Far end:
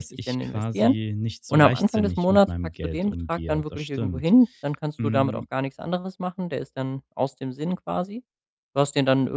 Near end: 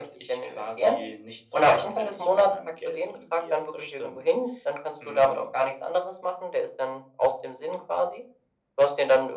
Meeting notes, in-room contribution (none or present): none